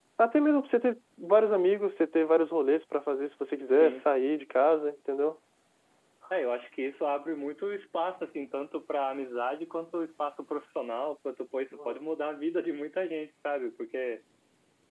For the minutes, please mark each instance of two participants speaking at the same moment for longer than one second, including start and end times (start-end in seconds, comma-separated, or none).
none